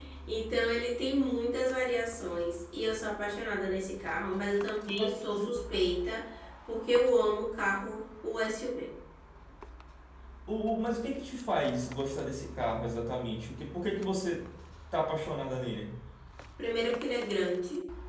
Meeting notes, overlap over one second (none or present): none